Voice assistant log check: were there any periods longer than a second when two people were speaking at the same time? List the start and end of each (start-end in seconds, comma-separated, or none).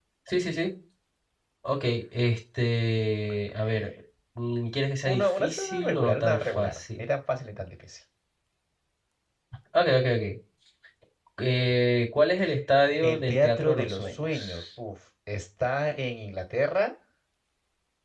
5.0-7.0, 13.0-14.6